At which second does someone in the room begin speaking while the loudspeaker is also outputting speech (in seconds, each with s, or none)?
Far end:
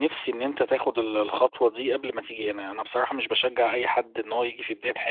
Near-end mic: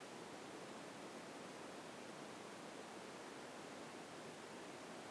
none